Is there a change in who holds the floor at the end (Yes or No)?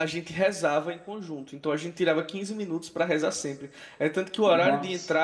No